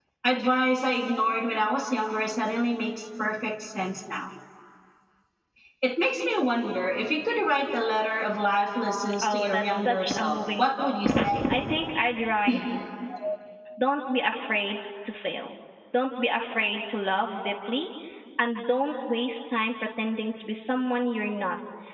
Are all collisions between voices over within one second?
No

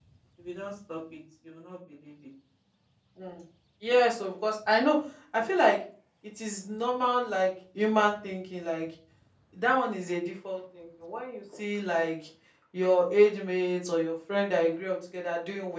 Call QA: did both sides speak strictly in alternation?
Yes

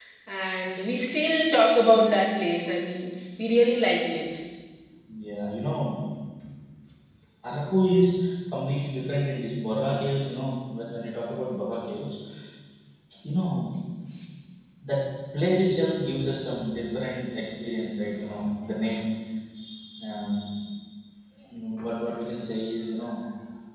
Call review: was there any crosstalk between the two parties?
No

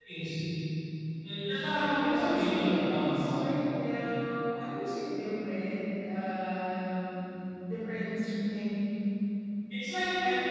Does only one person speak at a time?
No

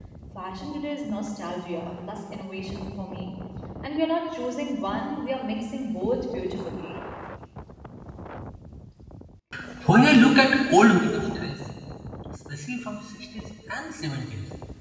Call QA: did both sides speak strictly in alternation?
Yes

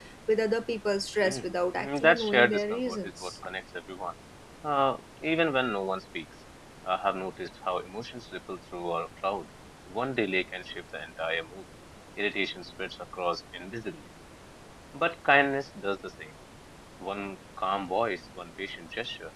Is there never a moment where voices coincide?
No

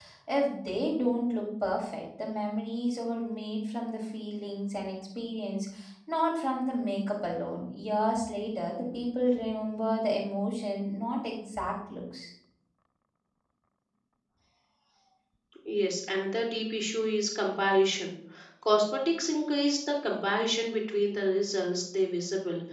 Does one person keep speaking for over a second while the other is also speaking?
No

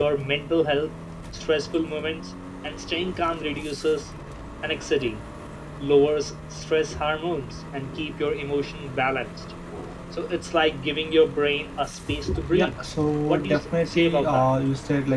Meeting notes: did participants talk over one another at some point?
Yes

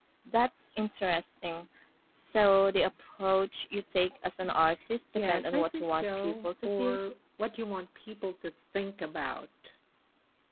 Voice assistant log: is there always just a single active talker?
No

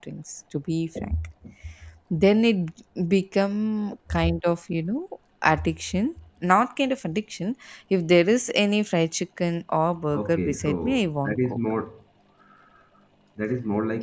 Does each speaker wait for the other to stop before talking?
No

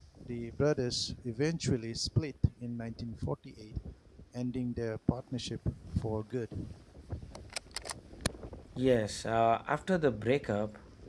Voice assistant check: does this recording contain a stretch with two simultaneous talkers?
No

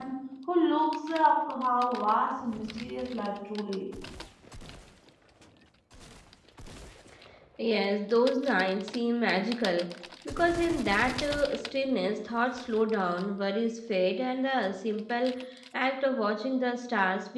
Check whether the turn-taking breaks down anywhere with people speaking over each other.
No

